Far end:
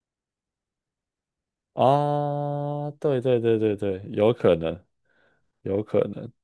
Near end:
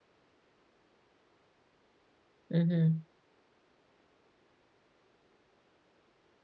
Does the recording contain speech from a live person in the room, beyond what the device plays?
Yes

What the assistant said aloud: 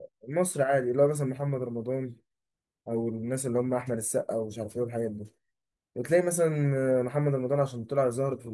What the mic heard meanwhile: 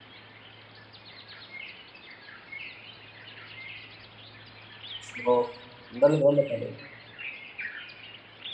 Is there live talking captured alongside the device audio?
Yes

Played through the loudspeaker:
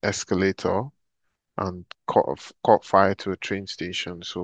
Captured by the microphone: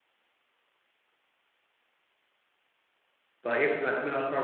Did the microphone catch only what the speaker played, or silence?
No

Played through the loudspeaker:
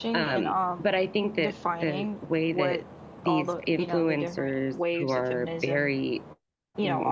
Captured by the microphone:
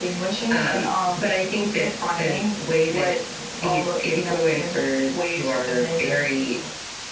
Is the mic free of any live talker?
Yes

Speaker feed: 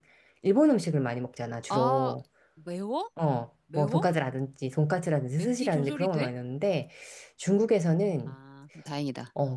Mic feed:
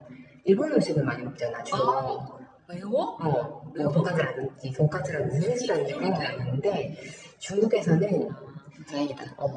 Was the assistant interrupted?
No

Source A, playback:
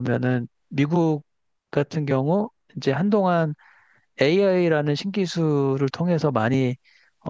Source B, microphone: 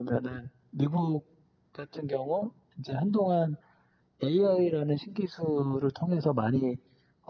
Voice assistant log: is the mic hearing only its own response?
Yes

